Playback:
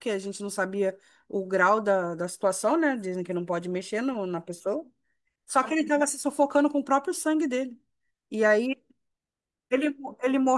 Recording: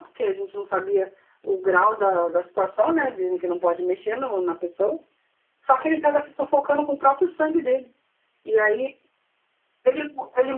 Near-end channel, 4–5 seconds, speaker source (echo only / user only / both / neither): echo only